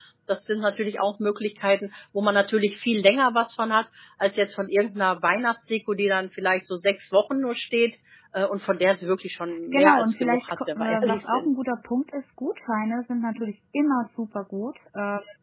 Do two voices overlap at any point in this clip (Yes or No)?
Yes